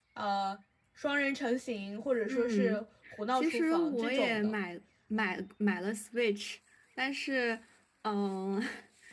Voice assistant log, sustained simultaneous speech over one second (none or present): present